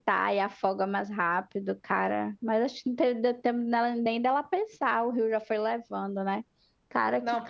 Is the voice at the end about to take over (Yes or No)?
Yes